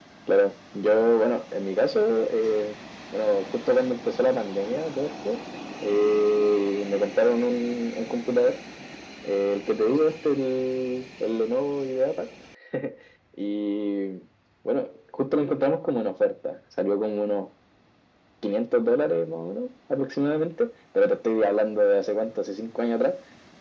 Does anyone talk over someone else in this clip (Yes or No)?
No